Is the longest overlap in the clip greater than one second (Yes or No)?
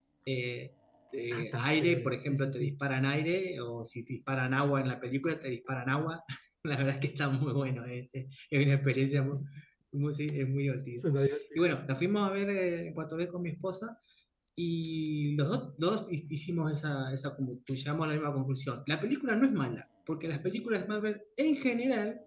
Yes